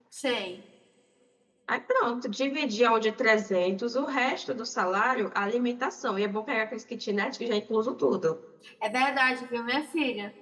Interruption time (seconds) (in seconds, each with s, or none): none